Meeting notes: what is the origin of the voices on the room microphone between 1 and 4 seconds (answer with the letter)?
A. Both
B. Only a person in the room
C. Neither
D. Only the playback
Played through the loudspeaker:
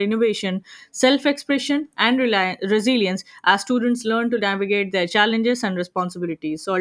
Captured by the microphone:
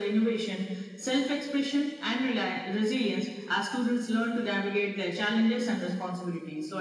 D